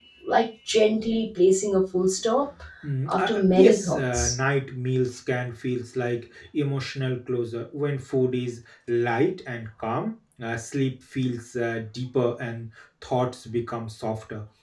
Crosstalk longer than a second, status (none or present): present